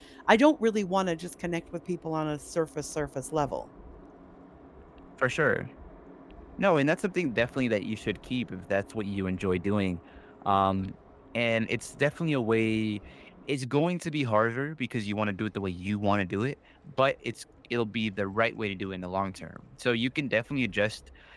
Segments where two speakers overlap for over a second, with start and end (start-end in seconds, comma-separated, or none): none